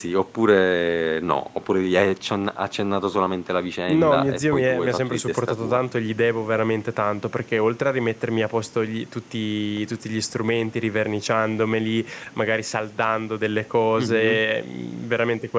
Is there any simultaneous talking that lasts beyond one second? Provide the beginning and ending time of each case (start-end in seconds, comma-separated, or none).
3.9-5.8